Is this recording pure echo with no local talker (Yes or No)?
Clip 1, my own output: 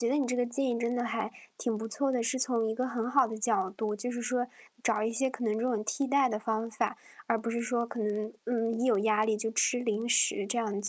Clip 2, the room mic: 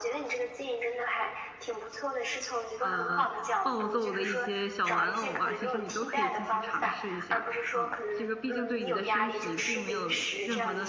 No